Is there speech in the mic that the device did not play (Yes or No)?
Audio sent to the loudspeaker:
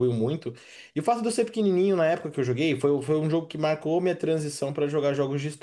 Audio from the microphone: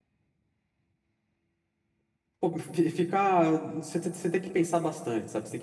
Yes